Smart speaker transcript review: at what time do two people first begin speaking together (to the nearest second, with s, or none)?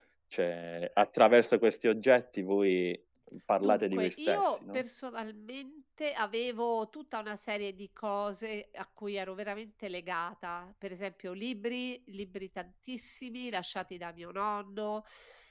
4 s